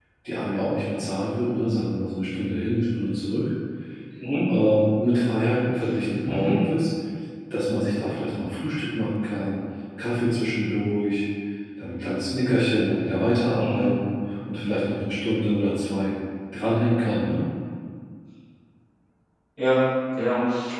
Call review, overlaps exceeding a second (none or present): none